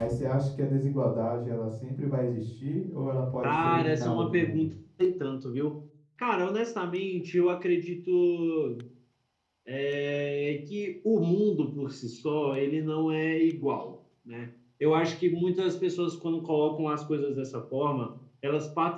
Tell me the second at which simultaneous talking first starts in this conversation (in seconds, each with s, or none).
3.4 s